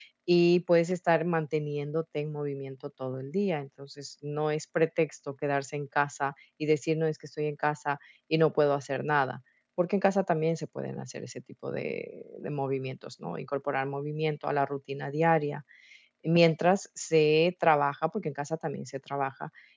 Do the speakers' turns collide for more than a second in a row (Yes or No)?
No